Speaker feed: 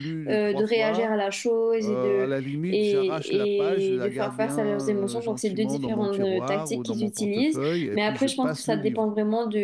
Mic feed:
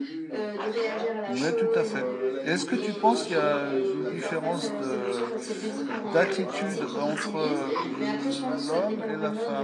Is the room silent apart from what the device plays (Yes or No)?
No